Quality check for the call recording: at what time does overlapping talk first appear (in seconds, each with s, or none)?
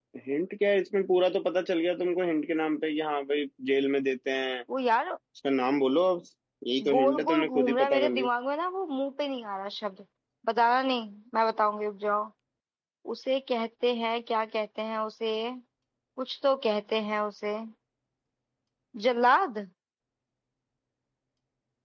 6.9 s